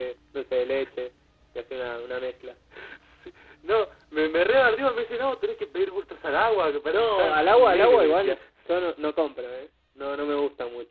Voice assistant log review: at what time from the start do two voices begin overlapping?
6.9 s

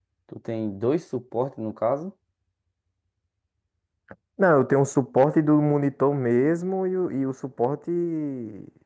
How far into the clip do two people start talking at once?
none

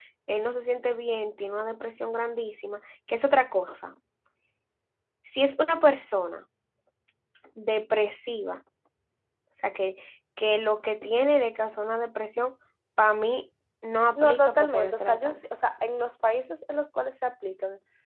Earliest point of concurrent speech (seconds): 14.2 s

